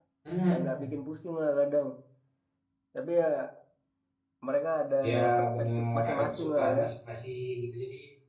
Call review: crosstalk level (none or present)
present